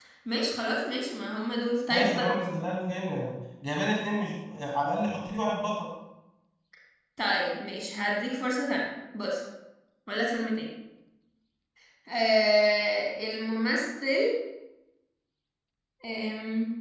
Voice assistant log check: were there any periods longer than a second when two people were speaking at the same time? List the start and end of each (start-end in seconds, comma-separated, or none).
none